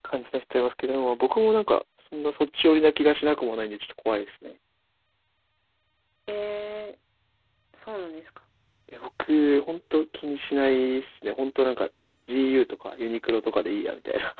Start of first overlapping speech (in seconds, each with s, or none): none